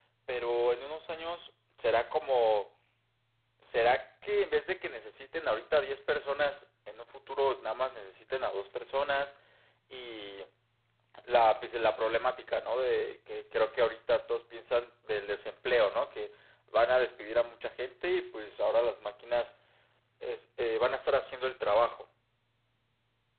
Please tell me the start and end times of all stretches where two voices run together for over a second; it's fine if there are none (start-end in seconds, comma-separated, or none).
none